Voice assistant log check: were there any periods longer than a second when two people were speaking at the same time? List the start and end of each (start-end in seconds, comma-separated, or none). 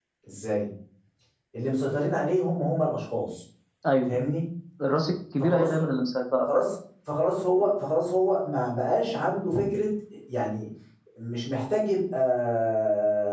none